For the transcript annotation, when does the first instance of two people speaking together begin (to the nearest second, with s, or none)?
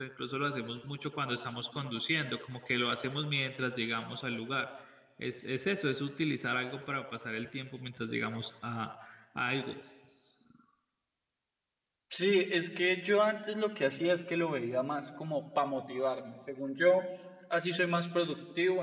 none